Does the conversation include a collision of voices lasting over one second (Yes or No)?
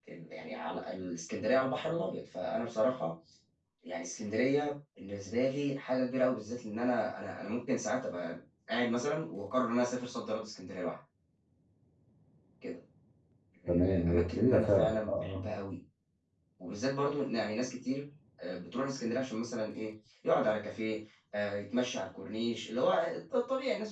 Yes